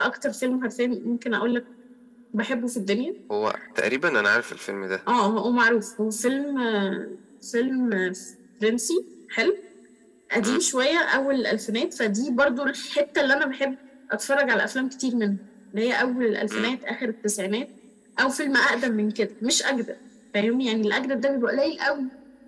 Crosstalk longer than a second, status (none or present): none